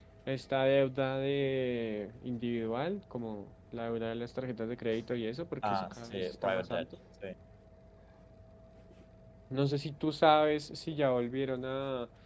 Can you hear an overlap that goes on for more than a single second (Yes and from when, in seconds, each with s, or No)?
Yes, from 5.6 s